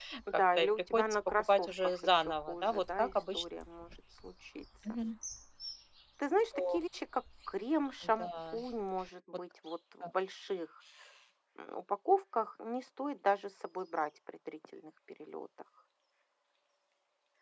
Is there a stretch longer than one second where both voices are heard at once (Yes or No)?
Yes